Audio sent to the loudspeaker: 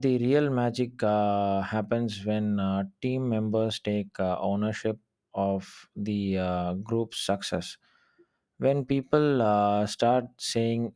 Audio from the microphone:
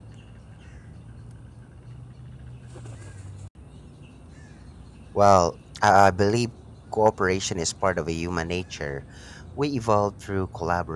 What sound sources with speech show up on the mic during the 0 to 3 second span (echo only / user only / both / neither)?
neither